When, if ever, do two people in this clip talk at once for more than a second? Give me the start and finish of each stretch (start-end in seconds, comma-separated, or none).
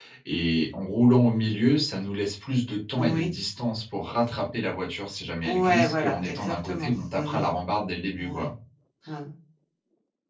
5.4-7.4